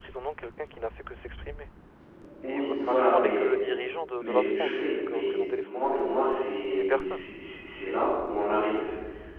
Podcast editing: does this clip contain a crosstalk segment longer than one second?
Yes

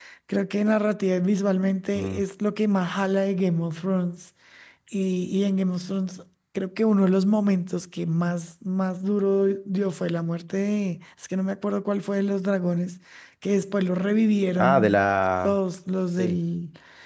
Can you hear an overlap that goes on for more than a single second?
No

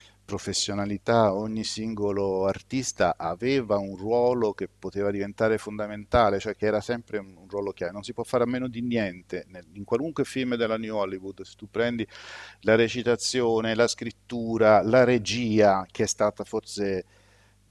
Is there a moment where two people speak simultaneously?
No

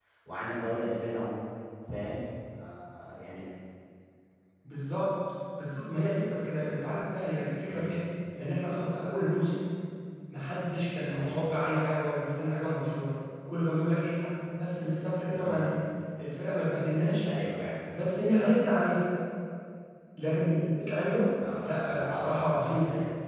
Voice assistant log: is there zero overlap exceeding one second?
No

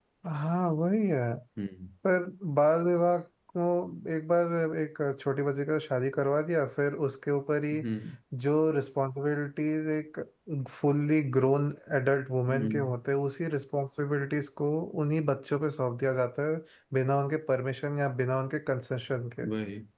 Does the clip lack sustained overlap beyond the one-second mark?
Yes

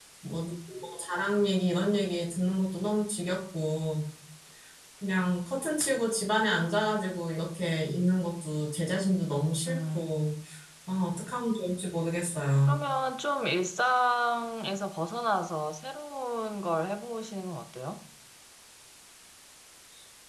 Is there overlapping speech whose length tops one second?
No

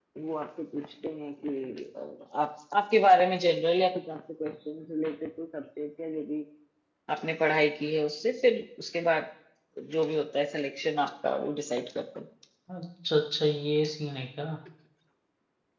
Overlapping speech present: No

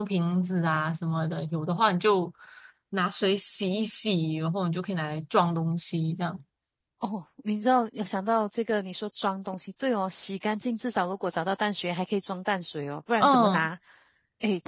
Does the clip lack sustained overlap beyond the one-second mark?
Yes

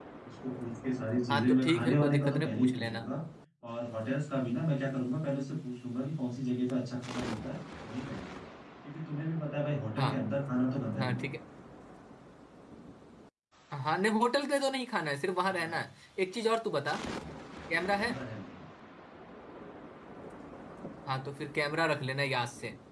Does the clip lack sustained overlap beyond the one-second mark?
No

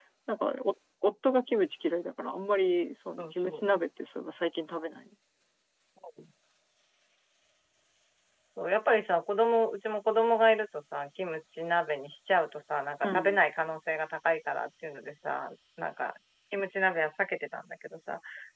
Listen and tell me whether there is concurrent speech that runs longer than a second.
No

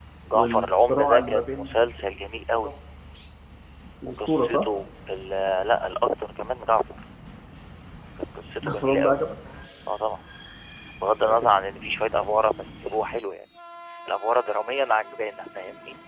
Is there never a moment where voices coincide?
No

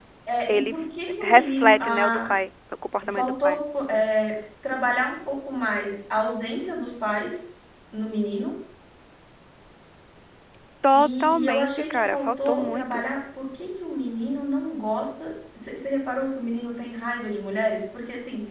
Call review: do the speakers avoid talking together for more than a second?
No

